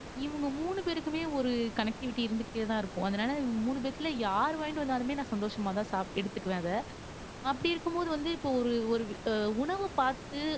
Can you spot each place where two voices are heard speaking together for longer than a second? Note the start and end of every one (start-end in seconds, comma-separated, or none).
none